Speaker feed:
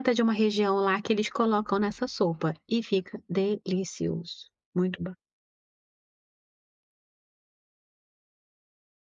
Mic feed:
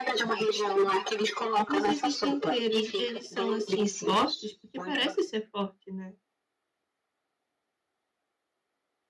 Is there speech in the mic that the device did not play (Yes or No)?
Yes